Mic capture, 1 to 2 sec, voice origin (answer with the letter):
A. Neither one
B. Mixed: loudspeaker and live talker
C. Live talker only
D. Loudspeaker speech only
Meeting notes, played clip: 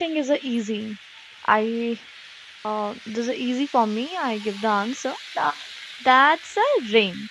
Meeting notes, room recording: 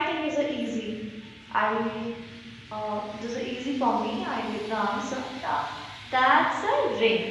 D